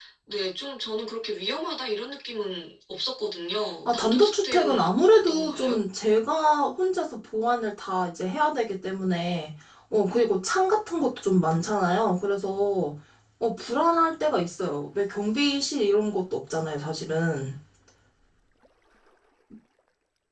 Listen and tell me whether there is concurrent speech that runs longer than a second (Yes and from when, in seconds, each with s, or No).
Yes, from 3.9 s